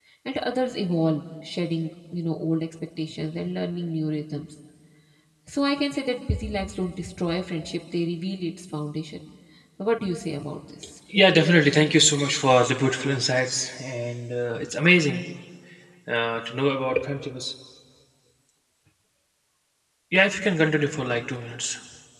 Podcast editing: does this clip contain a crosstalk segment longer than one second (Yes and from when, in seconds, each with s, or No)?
No